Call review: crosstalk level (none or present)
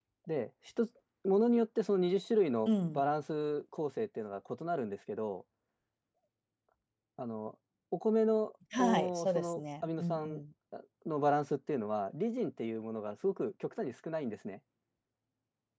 present